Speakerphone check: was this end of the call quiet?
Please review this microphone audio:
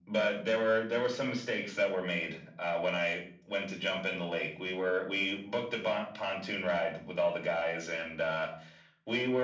Yes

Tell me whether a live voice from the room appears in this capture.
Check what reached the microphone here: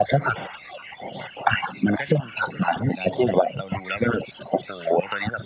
No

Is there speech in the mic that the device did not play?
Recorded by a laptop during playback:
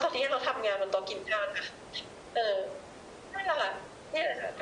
No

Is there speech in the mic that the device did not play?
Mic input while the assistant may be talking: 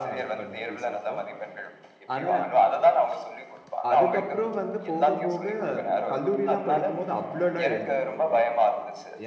Yes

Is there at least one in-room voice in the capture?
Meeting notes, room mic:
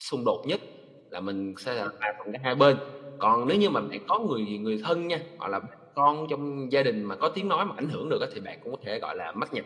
Yes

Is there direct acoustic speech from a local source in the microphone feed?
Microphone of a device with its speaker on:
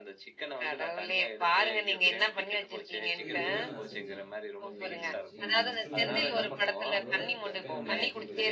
Yes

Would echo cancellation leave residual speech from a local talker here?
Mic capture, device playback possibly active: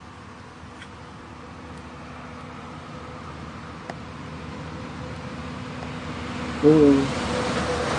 Yes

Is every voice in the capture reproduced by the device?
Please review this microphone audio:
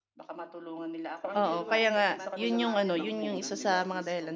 No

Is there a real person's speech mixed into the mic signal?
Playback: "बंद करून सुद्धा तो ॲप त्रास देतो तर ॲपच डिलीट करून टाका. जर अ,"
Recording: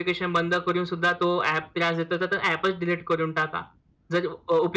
No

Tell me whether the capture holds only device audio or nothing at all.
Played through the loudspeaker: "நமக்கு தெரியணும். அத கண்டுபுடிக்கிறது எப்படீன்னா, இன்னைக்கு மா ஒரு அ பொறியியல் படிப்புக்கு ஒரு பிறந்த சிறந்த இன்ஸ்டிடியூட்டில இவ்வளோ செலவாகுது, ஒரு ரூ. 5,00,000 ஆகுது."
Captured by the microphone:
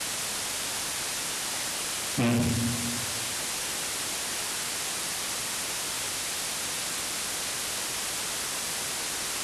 No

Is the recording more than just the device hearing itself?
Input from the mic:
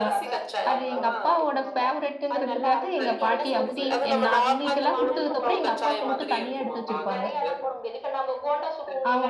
Yes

